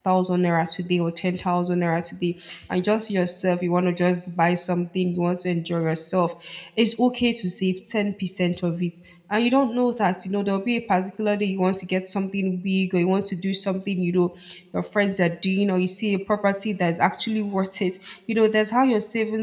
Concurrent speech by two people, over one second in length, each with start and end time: none

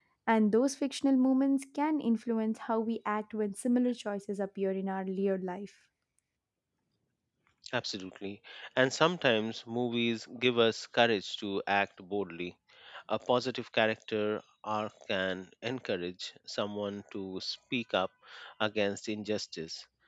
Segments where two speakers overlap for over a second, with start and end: none

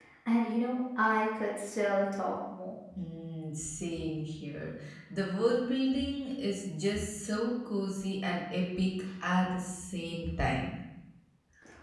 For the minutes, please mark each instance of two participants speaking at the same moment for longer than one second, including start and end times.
none

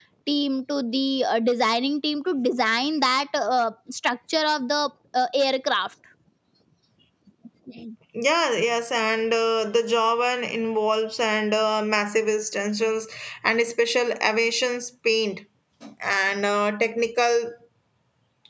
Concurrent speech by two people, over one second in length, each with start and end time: none

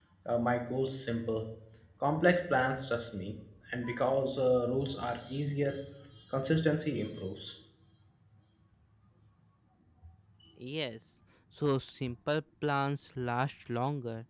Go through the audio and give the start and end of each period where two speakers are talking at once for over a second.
none

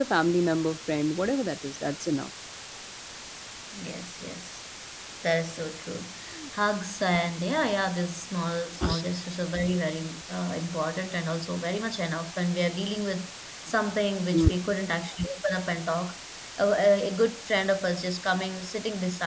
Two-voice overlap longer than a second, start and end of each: none

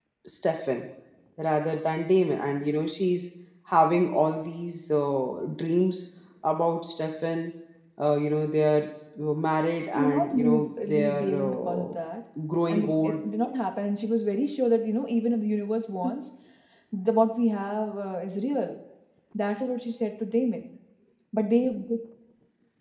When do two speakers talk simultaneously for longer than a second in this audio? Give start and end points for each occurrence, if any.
9.9-11.9

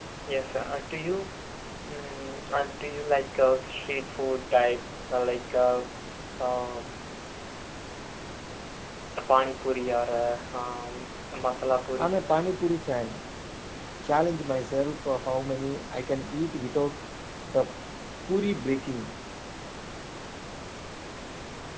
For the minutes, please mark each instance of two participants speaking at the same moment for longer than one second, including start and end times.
none

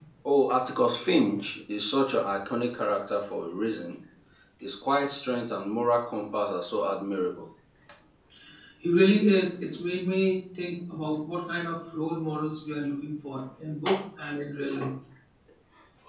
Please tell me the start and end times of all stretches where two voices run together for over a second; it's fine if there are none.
none

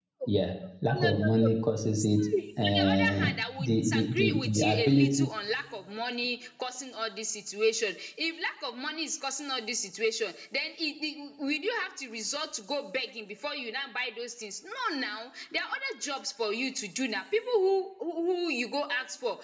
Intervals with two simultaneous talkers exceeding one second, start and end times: 2.0-5.1

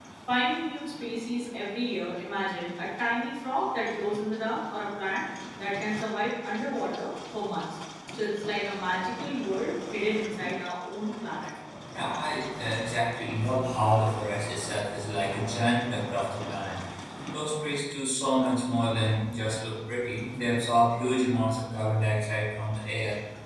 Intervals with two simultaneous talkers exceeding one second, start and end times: none

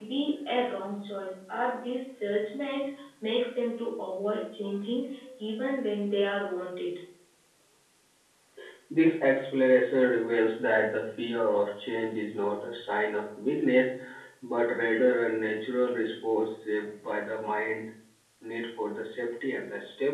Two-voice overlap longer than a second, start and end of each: none

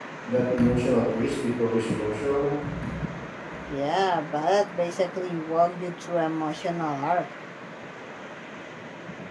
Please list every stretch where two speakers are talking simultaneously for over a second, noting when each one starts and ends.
none

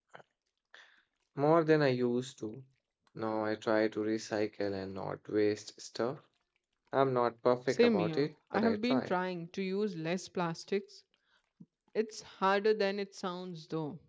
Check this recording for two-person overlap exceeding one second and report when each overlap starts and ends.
7.7-9.1

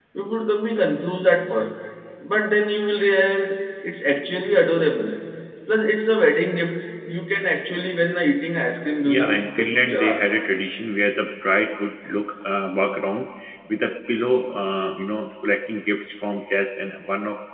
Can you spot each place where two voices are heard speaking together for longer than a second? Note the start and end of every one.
9.1-10.5

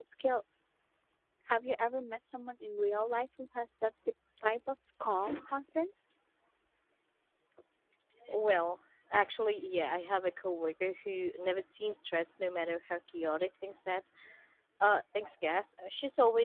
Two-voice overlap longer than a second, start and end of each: none

